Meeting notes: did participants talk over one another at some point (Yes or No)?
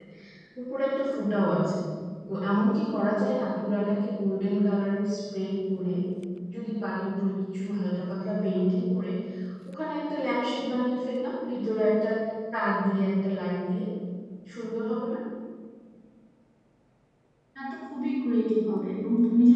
No